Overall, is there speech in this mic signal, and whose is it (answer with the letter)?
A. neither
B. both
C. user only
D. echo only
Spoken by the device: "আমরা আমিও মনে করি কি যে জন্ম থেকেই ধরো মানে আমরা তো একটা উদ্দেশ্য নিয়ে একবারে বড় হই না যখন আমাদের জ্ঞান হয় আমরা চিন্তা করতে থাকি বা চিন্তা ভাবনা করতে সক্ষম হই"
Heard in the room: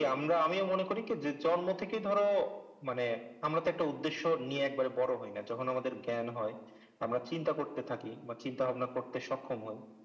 D